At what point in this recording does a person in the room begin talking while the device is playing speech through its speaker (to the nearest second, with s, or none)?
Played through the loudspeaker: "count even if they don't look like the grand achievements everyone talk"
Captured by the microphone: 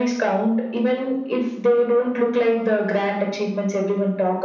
none